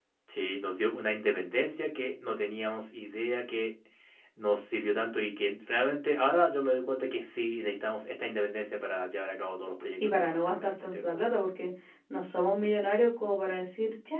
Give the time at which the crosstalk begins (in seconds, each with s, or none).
10.0 s